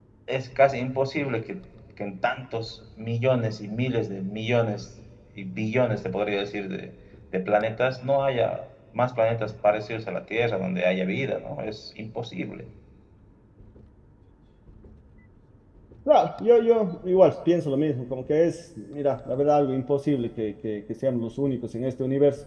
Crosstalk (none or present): none